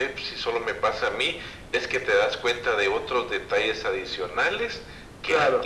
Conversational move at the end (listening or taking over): listening